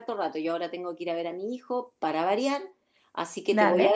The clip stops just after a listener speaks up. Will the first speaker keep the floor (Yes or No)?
Yes